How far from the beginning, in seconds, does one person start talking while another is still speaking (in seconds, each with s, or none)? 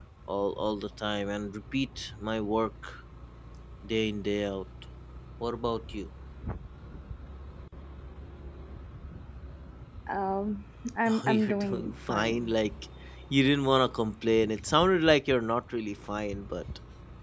11.1 s